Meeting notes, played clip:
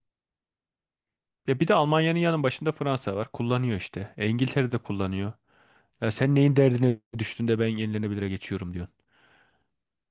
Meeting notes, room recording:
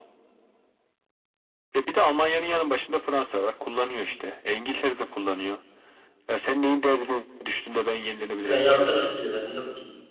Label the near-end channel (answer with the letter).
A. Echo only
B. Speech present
B